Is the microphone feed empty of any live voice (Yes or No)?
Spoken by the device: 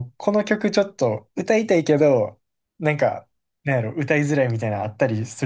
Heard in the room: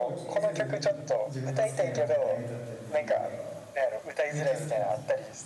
No